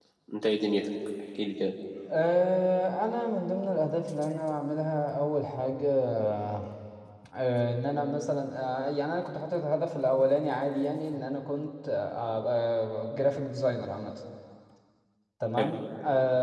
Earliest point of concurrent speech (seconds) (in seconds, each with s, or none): none